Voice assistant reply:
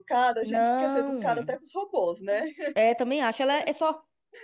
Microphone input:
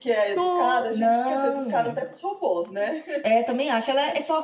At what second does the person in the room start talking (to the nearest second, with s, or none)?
0 s